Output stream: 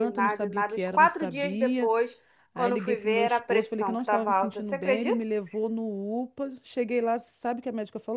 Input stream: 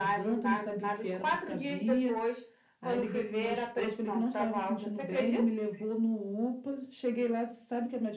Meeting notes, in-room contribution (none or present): none